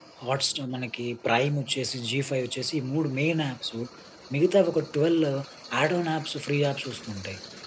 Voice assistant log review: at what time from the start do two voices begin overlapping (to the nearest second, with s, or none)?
none